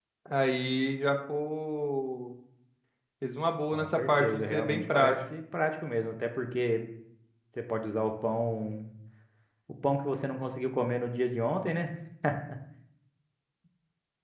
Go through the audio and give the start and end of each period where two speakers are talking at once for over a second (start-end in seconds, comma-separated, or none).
3.7-5.1